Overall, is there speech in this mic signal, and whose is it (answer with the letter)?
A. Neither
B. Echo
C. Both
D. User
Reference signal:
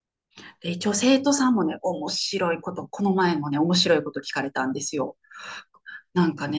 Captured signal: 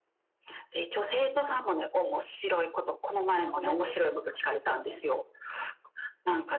C